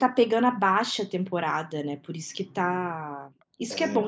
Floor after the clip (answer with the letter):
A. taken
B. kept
B